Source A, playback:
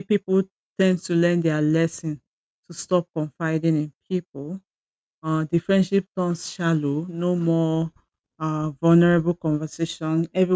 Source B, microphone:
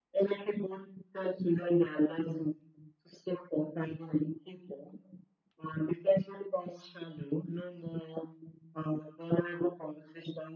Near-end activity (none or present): none